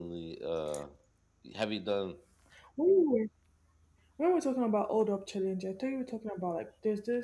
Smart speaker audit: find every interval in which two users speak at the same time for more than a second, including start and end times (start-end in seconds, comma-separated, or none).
none